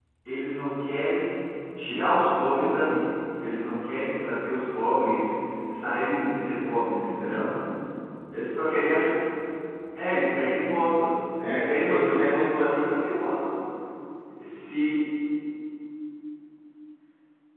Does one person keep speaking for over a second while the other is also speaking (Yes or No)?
Yes